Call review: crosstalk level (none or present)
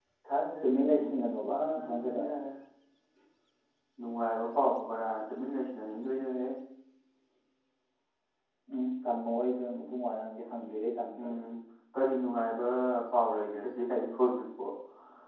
present